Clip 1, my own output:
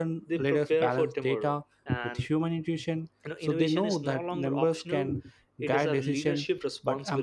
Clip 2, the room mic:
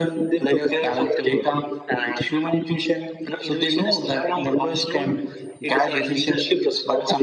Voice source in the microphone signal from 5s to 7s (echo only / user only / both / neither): echo only